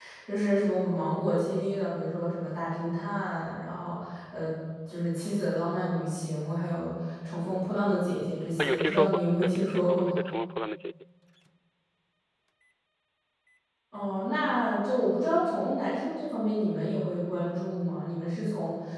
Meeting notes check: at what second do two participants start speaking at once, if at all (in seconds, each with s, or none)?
8.6 s